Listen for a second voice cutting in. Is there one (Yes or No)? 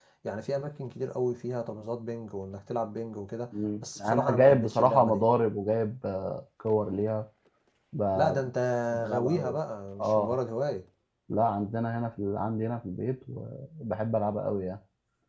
Yes